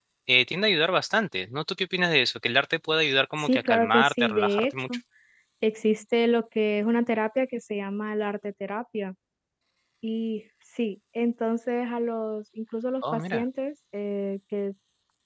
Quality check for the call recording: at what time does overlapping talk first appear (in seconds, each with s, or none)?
3.4 s